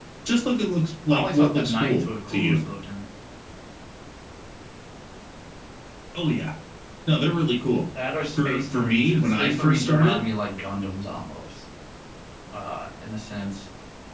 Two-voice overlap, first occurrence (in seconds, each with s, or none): 1.1 s